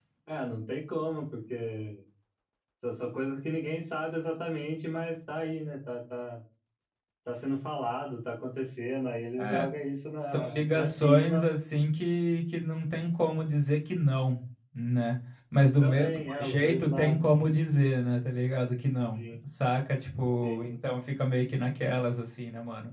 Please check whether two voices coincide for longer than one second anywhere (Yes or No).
Yes